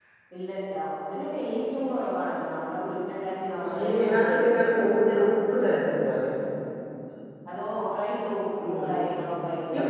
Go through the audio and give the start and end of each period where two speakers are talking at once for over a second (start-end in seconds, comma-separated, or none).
3.7-5.0